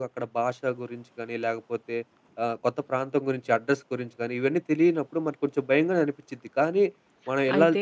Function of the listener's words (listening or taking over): taking over